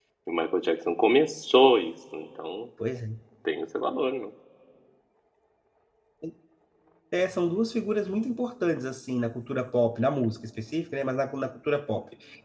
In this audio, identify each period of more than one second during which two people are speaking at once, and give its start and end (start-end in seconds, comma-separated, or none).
none